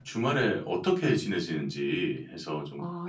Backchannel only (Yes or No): No